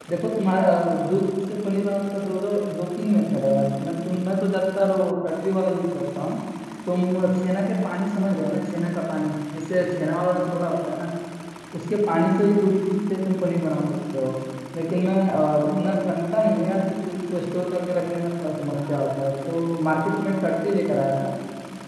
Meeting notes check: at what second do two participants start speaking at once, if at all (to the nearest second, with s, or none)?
none